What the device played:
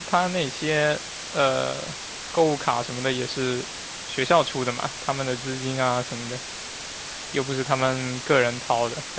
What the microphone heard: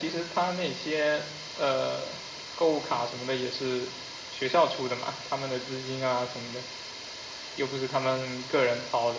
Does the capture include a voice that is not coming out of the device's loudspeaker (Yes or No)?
No